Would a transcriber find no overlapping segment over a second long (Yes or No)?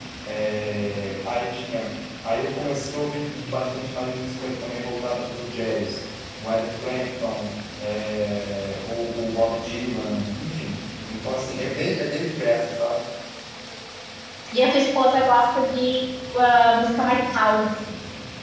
Yes